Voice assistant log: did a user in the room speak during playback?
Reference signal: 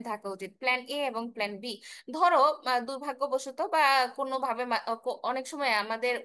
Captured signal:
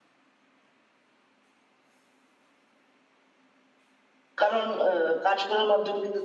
Yes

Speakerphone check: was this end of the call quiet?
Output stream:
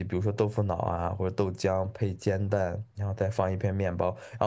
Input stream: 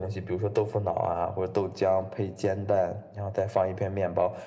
Yes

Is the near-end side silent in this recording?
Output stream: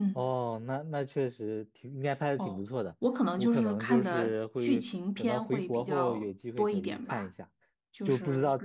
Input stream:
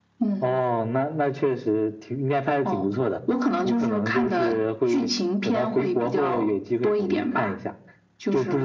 Yes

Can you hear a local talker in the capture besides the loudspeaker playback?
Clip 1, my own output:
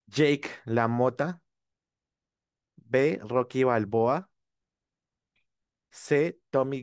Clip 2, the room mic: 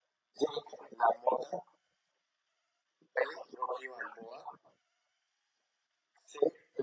No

